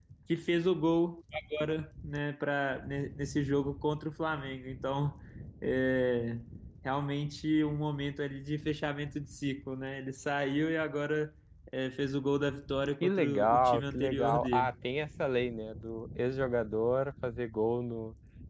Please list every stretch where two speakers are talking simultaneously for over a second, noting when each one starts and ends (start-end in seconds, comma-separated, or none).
13.0-14.7